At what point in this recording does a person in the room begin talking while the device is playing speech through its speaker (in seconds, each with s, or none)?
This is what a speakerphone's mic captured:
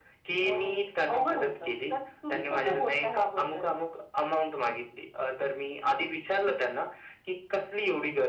none